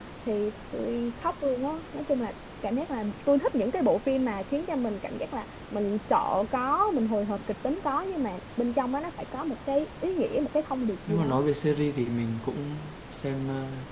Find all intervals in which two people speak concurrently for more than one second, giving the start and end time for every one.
none

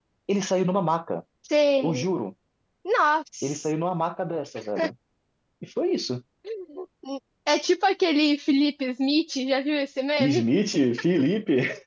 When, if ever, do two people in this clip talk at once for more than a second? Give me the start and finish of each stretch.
none

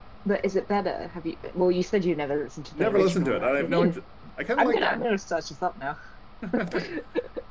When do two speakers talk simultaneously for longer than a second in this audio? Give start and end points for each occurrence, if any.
2.7-3.9

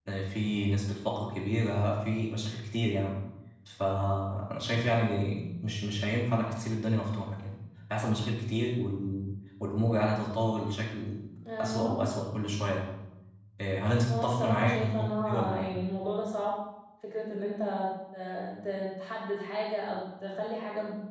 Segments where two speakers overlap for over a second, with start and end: 14.1-15.7

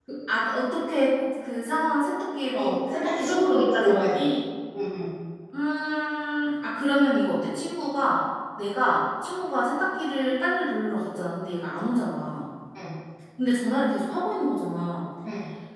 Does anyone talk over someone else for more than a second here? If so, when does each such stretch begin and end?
2.5-4.2

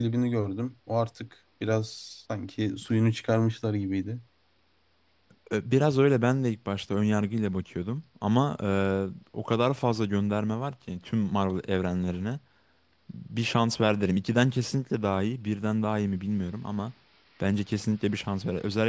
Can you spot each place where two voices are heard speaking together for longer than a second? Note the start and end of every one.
none

